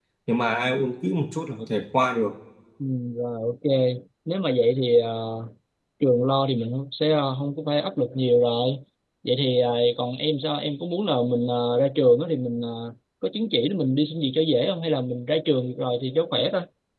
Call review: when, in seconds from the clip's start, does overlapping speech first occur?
none

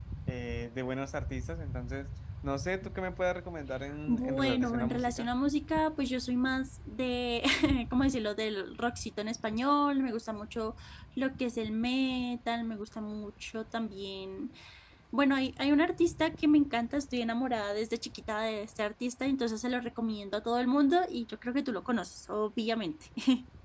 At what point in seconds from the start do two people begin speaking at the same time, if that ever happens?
4 s

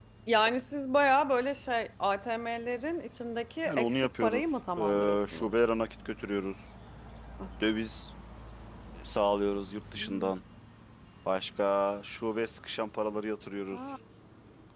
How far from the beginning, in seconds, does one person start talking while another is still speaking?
4 s

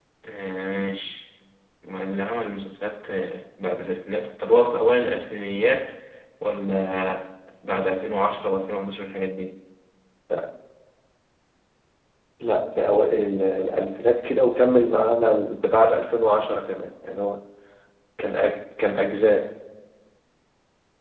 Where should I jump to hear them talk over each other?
none

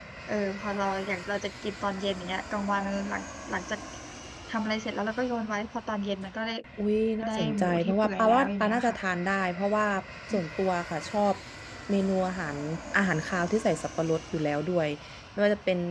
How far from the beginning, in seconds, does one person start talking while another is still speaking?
7 s

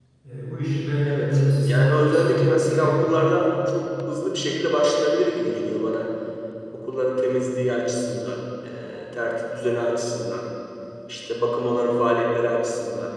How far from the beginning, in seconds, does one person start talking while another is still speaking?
1 s

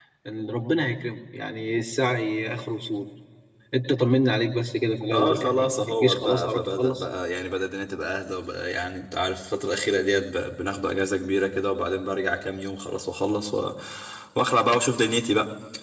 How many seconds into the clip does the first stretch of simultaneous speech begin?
5 s

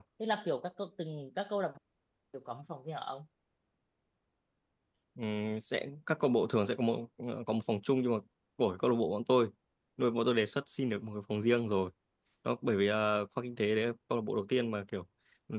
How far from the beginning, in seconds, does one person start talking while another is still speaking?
none

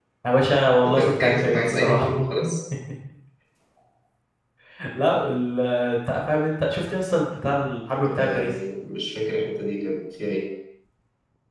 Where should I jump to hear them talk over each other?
1 s

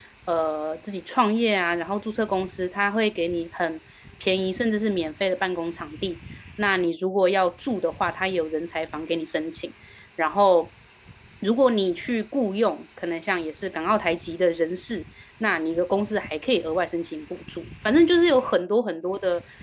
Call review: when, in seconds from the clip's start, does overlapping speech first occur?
none

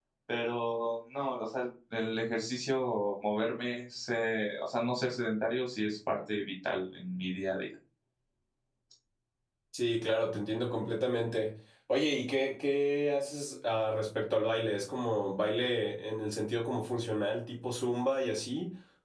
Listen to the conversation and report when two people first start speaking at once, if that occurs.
none

